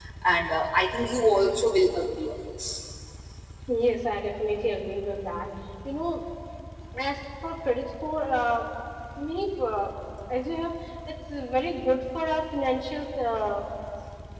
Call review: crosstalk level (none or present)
none